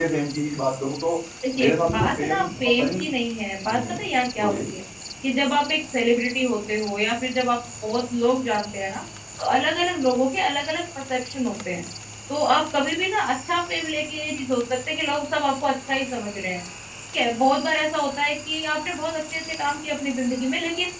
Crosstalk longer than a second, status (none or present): present